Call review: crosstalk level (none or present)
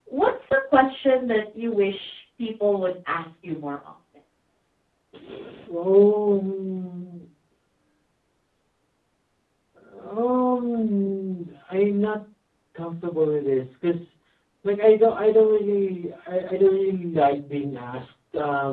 none